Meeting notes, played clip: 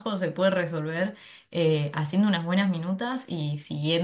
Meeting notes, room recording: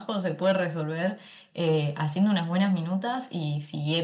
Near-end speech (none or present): none